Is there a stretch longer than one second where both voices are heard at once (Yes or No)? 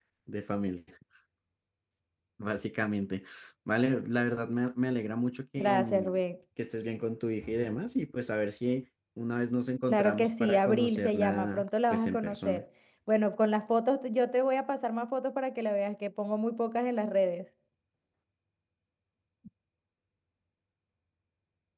Yes